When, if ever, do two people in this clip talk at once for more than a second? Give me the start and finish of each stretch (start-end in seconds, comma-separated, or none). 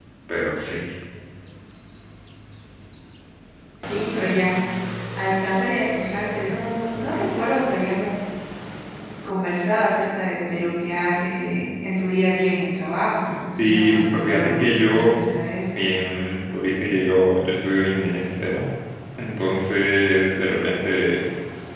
13.6-15.2